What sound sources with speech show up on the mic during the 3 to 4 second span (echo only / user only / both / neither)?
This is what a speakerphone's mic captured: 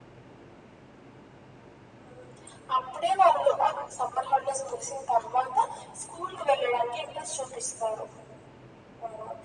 echo only